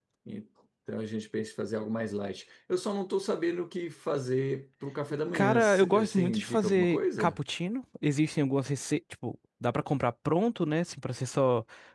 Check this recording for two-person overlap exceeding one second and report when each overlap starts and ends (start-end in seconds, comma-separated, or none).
5.3-7.4